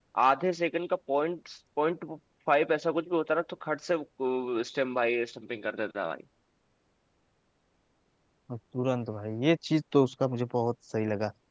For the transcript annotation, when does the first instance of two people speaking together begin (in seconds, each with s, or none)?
none